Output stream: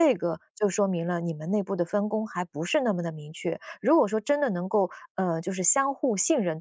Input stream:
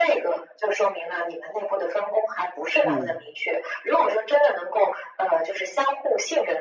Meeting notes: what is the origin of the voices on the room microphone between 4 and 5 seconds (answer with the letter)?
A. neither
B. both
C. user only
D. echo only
D